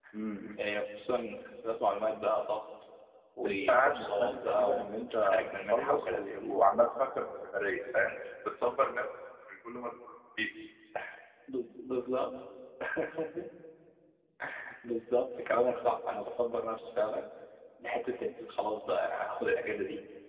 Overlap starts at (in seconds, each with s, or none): 3.5 s